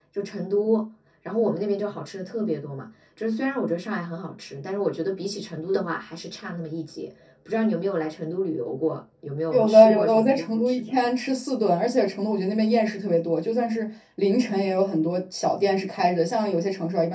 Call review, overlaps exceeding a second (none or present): present